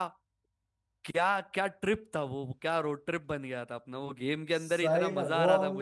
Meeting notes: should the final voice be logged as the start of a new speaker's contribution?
Yes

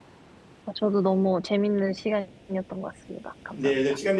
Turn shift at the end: Yes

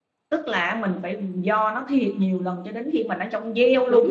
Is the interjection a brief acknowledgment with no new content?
No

